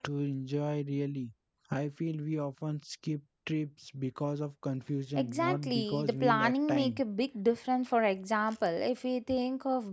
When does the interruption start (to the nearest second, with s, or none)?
5 s